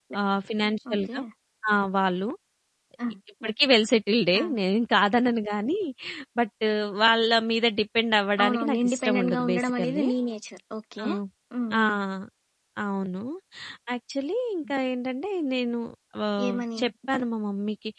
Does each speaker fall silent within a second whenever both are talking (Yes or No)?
No